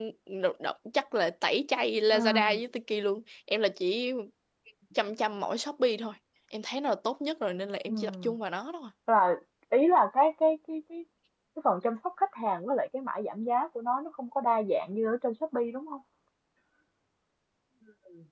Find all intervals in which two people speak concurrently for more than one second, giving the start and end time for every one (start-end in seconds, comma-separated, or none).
none